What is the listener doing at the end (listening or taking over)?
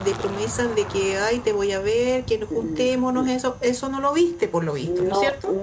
taking over